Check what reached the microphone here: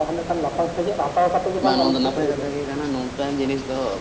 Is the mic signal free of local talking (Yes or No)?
No